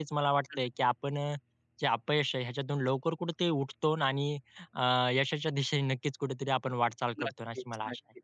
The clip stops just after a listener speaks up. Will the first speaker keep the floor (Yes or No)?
No